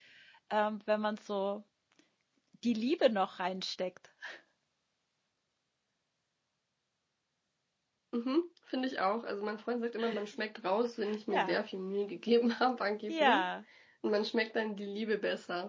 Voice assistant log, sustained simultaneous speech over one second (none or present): none